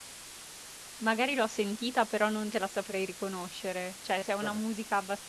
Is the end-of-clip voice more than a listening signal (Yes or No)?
No